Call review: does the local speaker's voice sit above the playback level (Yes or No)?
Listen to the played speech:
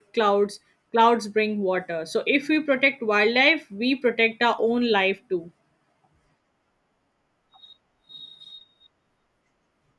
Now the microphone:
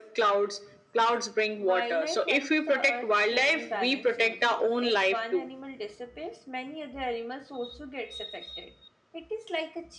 No